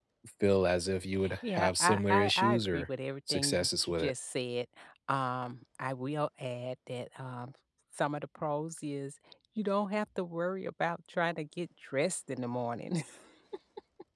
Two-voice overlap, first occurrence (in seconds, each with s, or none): 1.4 s